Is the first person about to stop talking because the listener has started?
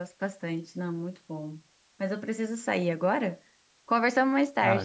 Yes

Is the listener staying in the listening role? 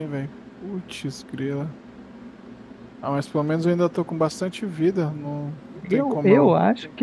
No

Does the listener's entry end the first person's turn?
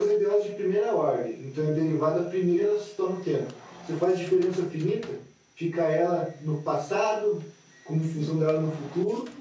No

